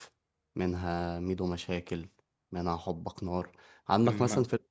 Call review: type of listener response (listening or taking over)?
listening